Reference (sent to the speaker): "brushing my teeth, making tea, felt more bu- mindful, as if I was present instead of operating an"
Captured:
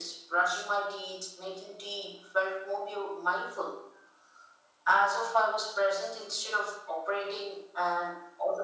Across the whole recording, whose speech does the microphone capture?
echo only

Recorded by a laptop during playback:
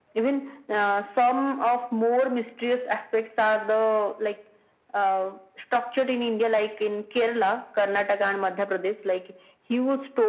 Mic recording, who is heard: echo only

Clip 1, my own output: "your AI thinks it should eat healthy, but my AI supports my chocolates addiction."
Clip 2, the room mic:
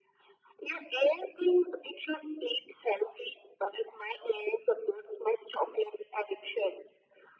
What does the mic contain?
echo only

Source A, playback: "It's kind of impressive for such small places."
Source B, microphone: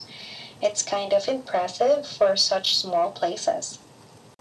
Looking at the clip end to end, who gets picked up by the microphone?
echo only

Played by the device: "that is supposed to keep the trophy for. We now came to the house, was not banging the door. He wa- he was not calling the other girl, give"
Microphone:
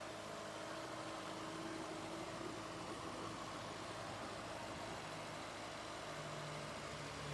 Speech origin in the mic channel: neither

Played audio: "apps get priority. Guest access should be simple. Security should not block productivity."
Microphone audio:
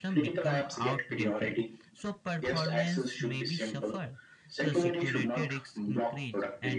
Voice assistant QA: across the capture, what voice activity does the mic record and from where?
both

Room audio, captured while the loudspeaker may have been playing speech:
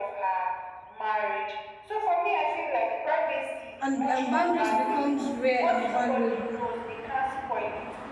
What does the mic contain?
both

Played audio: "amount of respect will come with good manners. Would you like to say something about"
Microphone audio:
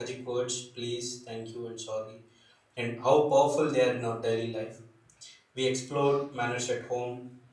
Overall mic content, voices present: user only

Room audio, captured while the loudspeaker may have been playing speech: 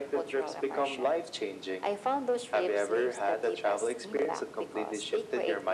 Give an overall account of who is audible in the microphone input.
echo only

